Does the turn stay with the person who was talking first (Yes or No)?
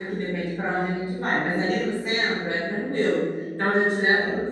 Yes